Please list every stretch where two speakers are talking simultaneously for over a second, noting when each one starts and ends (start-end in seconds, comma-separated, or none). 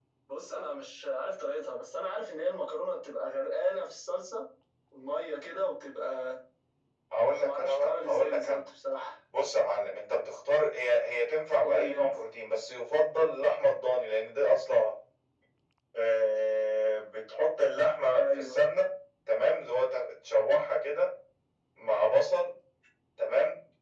7.3-8.6